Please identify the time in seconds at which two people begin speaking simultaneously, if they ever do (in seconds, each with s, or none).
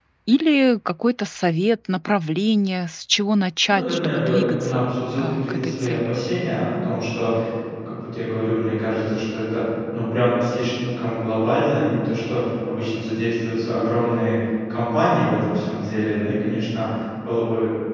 3.7 s